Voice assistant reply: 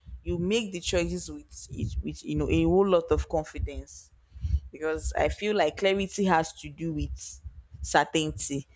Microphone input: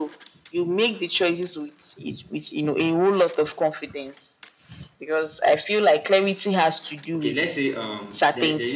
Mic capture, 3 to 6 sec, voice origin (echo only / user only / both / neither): echo only